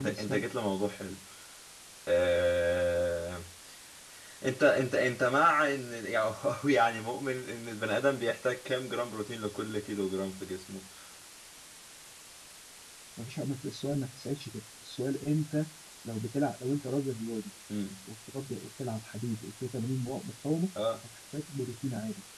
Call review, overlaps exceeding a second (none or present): none